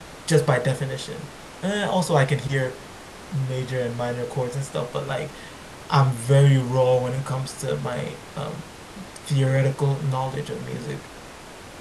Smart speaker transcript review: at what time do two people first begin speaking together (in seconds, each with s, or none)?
none